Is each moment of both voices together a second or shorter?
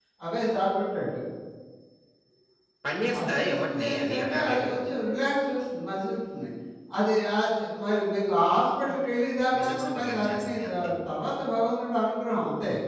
No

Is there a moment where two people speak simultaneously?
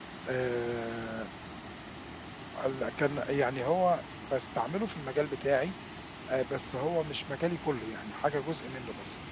No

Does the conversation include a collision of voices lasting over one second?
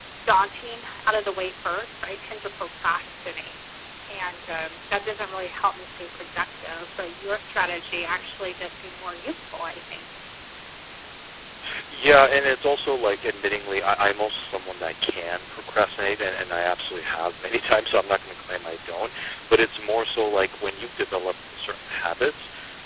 No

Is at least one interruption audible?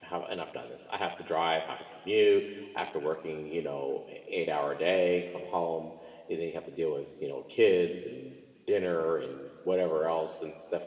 No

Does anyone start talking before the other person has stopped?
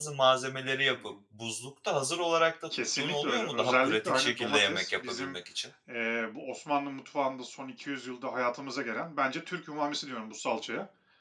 Yes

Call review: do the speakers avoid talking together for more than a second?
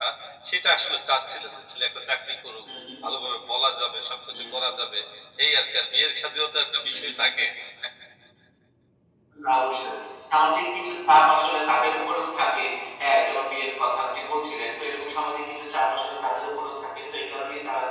Yes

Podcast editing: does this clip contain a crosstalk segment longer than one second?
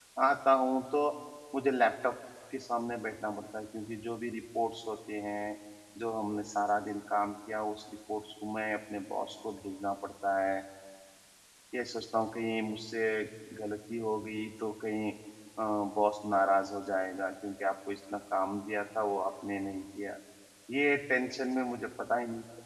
No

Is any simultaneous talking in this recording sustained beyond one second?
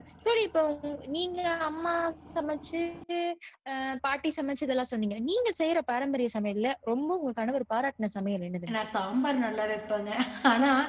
No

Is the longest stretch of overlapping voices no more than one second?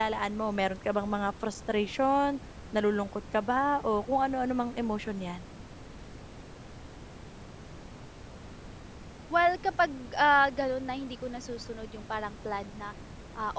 Yes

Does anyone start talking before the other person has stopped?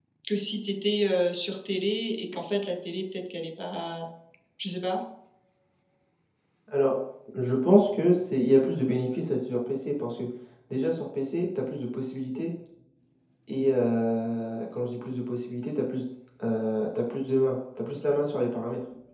No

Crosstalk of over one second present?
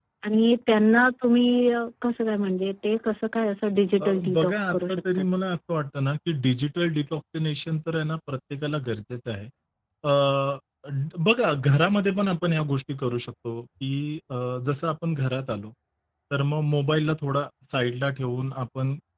Yes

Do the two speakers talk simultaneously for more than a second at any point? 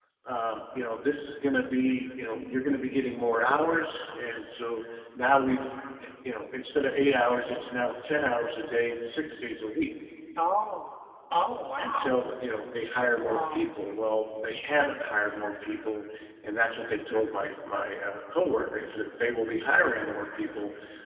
No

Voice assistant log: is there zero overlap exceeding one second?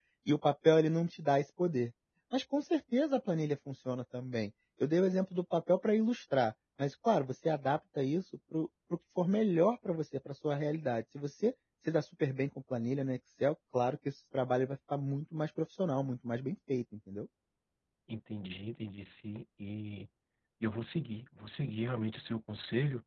Yes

